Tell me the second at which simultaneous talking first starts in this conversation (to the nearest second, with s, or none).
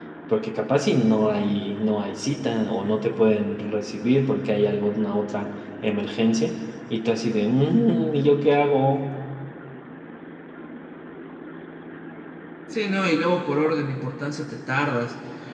none